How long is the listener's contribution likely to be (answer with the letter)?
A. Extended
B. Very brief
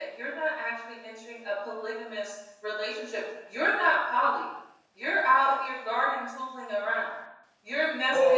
B